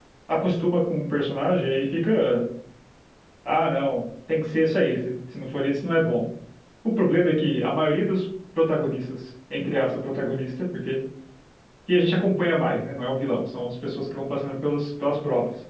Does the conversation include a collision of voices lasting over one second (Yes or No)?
No